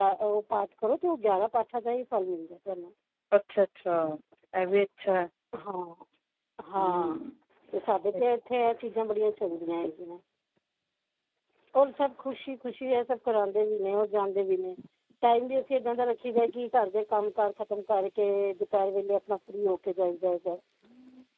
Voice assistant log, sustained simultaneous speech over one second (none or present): none